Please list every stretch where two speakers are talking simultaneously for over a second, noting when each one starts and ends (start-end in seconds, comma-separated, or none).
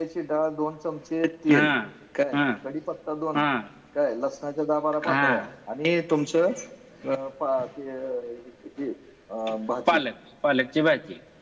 none